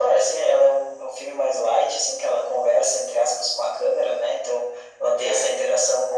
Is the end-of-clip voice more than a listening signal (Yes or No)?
No